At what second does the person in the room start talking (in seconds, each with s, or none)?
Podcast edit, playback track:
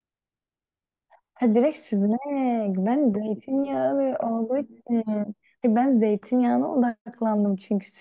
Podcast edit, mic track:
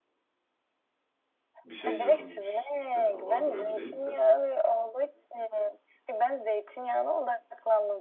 1.6 s